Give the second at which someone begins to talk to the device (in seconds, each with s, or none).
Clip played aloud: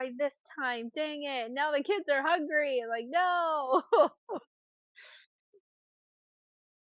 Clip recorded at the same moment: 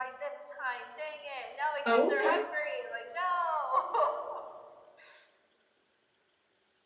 1.8 s